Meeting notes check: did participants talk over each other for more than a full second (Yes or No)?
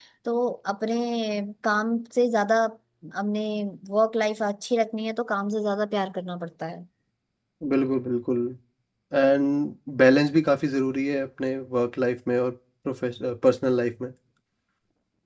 No